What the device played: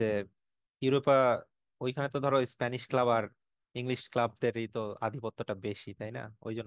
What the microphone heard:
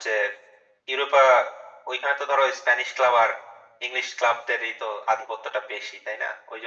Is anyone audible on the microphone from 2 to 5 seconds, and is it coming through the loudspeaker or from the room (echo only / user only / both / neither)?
echo only